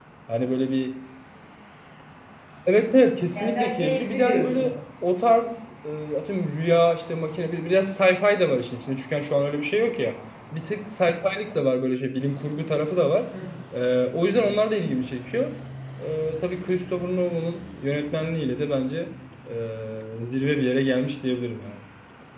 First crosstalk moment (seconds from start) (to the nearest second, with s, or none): 3 s